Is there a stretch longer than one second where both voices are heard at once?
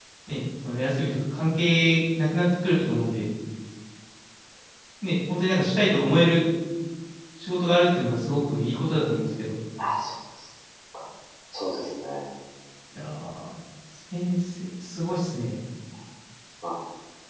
No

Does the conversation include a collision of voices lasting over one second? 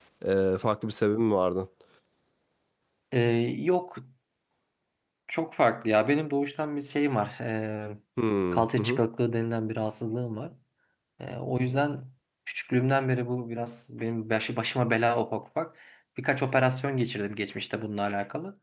No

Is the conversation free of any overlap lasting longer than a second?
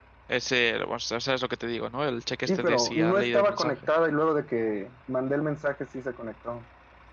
No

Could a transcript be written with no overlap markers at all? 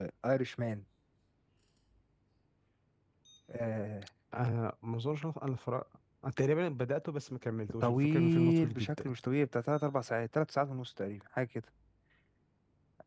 No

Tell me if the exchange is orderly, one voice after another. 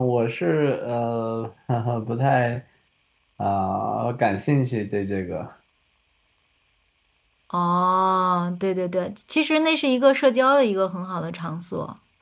Yes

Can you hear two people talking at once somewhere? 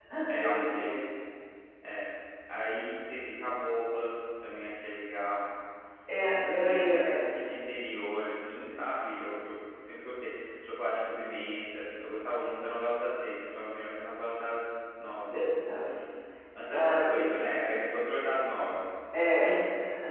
Yes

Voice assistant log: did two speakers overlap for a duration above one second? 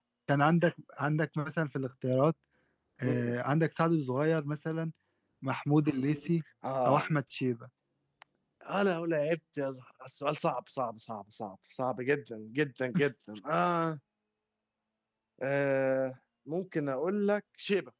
No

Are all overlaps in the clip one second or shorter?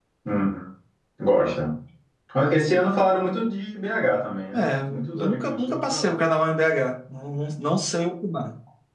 No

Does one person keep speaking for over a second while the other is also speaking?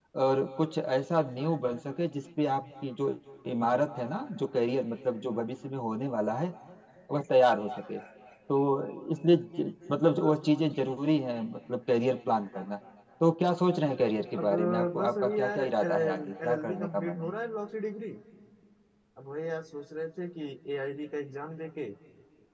Yes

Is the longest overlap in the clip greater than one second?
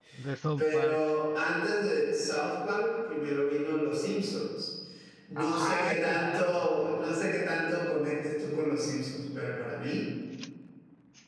Yes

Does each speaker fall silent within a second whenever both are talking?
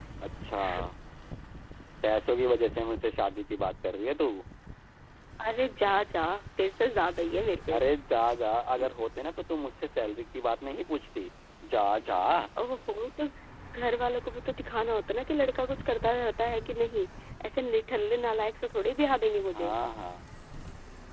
Yes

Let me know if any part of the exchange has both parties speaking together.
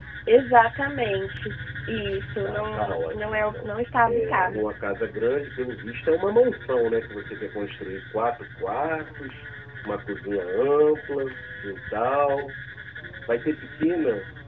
Yes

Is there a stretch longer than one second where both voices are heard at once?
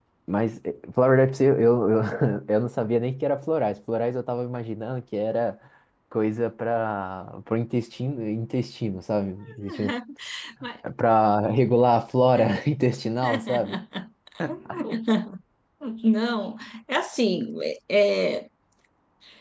No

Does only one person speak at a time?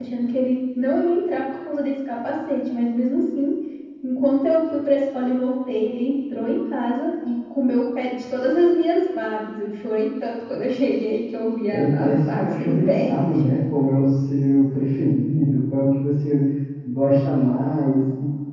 No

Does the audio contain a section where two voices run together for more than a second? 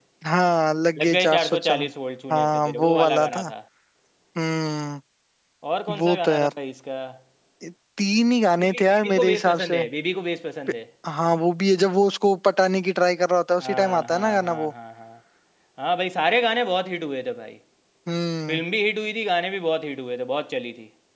Yes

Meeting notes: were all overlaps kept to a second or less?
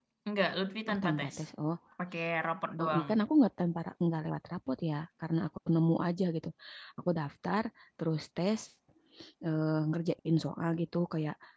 Yes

